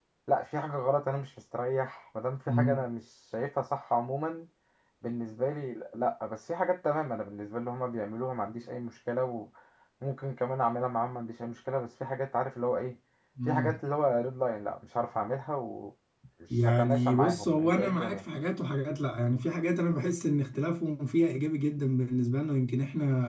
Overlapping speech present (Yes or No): Yes